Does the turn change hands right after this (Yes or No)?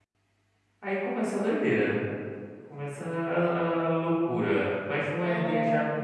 No